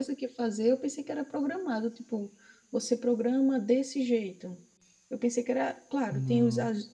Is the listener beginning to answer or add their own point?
No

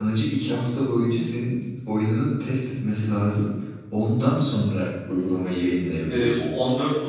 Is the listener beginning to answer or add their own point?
Yes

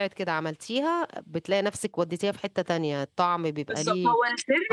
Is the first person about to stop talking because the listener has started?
Yes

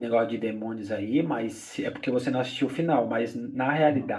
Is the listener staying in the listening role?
Yes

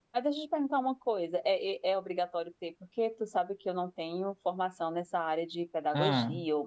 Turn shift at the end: No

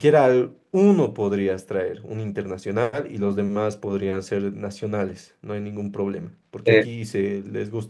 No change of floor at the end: Yes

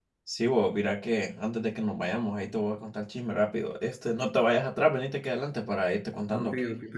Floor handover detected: Yes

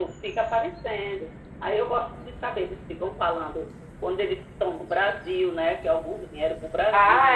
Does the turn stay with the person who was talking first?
No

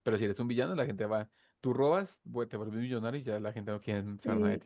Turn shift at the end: Yes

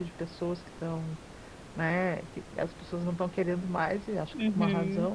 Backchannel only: No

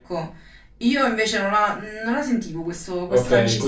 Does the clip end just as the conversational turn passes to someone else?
Yes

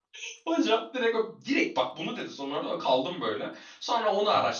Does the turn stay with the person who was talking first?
Yes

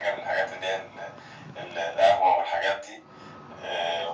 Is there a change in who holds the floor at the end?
No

